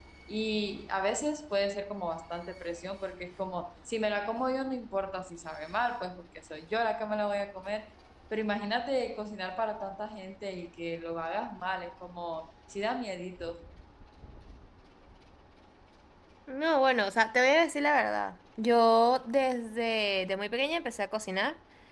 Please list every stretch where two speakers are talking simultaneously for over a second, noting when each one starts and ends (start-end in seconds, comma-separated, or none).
none